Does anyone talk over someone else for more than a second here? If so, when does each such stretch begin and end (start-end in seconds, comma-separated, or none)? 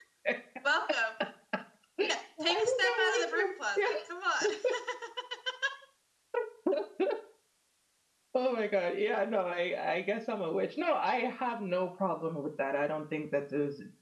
2.6-4.0